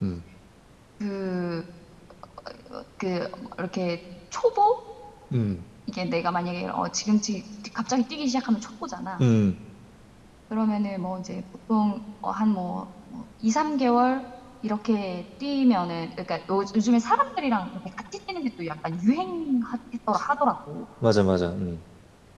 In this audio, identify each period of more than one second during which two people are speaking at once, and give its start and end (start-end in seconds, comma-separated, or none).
none